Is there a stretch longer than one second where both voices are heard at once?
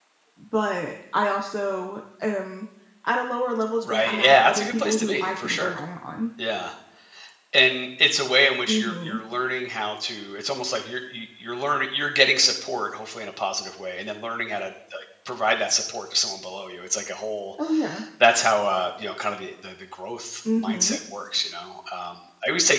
Yes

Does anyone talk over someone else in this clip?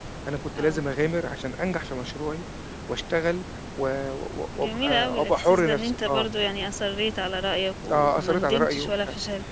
Yes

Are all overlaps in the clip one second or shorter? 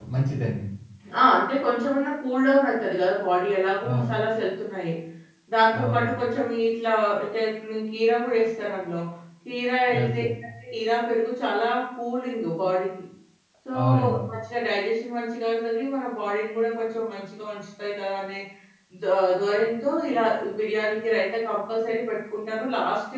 Yes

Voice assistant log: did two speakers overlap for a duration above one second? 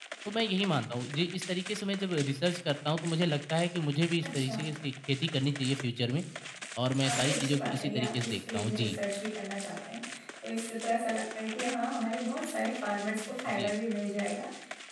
Yes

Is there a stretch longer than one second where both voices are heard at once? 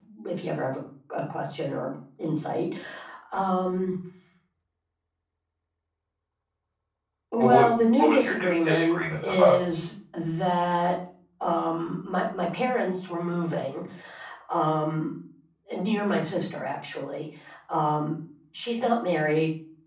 Yes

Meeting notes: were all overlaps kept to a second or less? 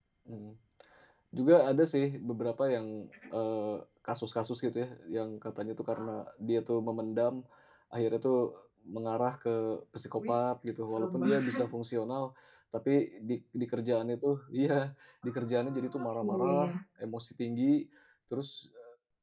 No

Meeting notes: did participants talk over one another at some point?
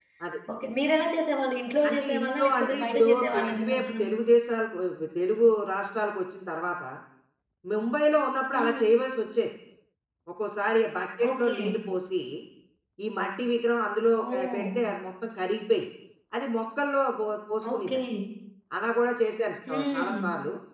Yes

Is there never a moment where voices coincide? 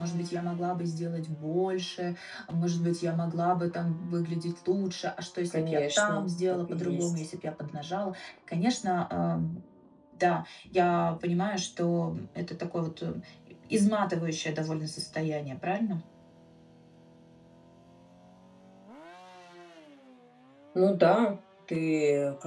No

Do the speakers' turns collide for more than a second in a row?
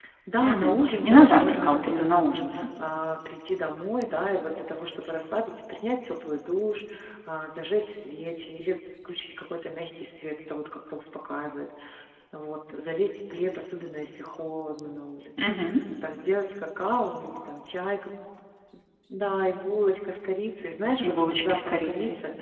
Yes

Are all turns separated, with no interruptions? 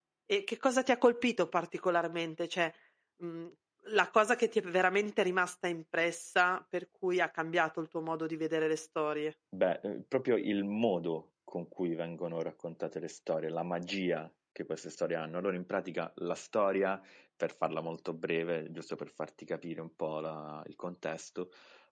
Yes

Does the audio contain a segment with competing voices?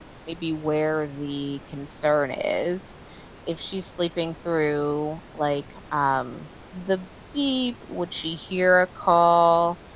No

